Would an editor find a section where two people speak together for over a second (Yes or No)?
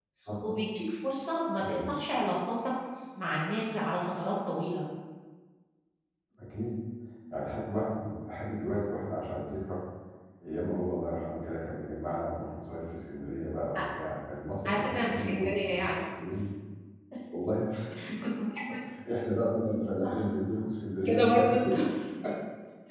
Yes